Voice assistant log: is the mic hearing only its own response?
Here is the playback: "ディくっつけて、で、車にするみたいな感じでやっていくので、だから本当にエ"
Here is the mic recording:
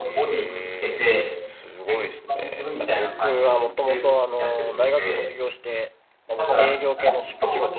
No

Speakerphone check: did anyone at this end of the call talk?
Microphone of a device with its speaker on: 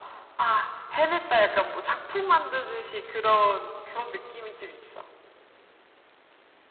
No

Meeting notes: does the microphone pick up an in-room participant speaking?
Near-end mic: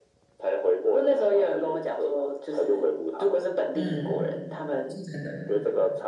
Yes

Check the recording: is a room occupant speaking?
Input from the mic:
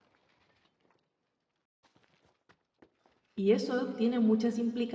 Yes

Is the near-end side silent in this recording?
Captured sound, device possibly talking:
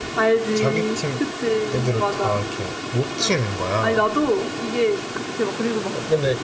No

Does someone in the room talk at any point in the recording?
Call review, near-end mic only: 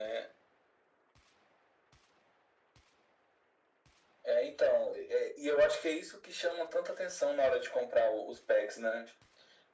No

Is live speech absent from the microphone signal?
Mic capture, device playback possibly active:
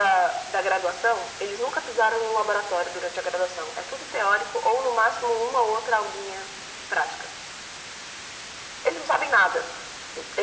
Yes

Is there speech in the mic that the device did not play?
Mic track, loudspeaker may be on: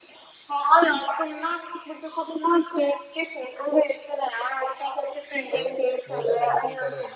Yes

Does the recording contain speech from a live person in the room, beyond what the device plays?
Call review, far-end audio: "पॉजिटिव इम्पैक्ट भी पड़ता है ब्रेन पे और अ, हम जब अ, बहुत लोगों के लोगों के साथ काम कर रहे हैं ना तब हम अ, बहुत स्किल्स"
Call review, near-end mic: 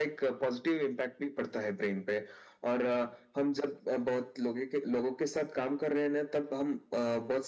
No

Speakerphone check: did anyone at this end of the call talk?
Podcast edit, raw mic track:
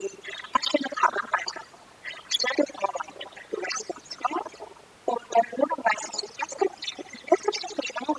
No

